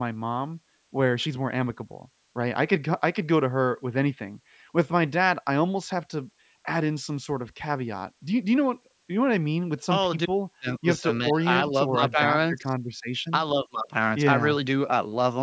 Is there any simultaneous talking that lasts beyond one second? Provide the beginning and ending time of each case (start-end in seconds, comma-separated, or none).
10.8-12.6